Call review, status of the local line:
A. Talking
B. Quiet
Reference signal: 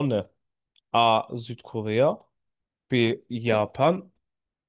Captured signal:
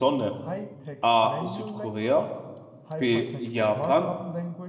A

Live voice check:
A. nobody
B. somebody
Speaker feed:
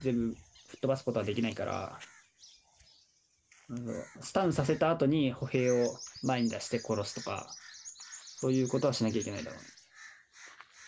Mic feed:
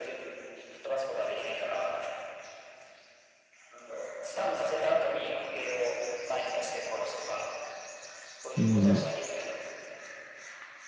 B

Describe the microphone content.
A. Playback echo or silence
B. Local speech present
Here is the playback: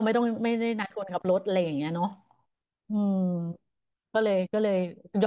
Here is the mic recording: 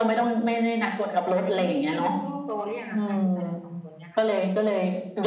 B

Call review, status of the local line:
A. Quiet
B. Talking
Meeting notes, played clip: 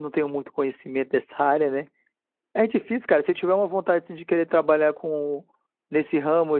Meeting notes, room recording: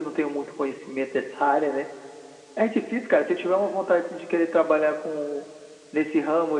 A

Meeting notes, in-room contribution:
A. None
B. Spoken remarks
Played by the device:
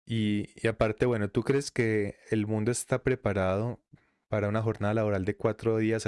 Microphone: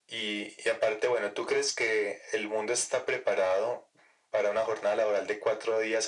A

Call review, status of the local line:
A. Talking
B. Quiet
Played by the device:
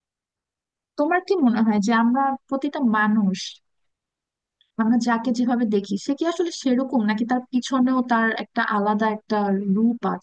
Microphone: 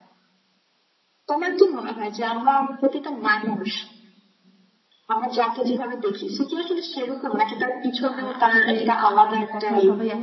A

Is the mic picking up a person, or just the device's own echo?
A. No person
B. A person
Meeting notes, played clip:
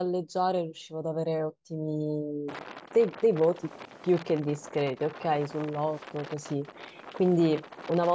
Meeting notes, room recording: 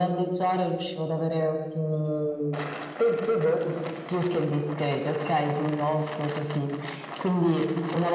A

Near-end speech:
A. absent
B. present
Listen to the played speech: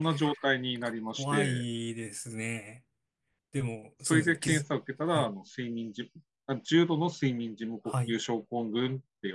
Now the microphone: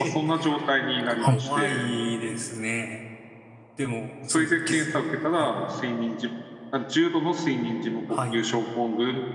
B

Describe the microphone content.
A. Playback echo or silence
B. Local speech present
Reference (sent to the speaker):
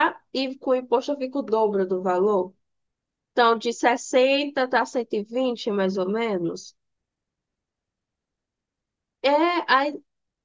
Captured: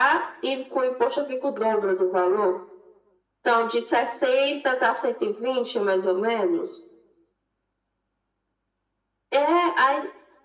A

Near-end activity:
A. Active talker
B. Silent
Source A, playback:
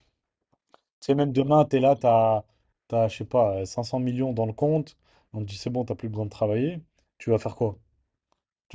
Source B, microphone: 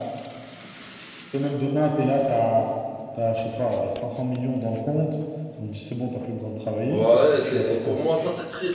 A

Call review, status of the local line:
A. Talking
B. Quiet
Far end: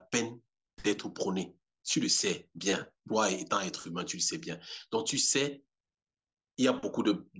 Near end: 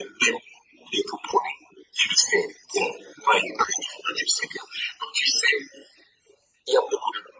B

